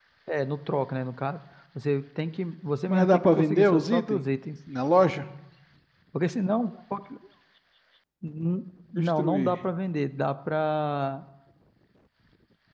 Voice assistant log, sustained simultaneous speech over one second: present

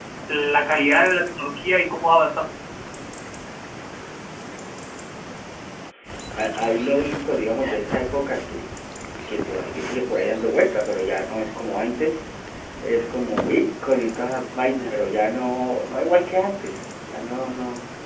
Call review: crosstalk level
none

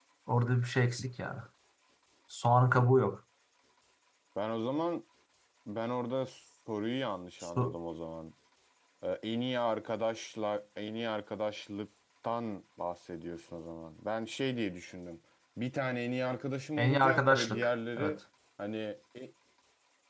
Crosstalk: present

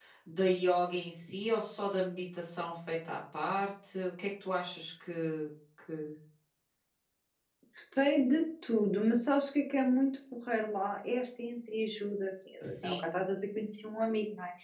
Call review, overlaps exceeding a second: none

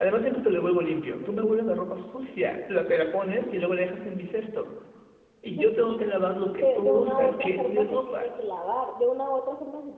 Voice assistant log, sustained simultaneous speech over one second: present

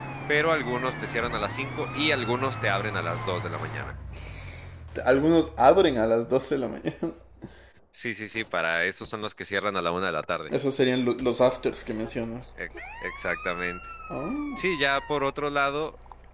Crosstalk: none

